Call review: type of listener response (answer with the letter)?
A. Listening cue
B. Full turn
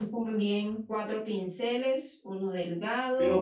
B